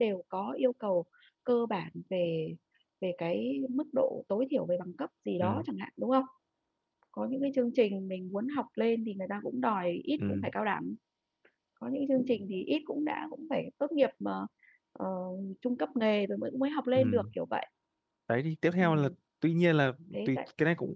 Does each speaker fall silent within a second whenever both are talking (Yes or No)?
Yes